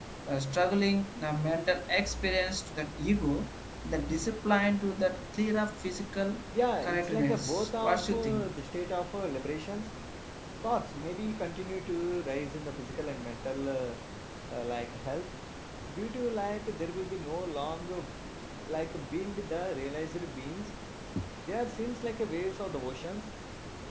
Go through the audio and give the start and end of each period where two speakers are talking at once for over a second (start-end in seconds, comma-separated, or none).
6.8-8.5